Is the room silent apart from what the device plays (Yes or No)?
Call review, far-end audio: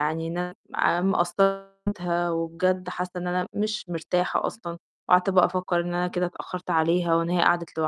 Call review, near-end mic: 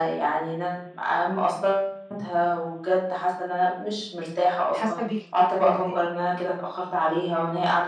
No